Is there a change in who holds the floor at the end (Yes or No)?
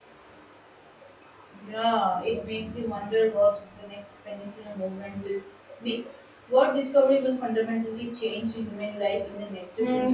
Yes